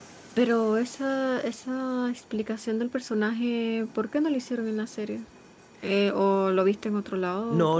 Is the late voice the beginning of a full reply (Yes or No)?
Yes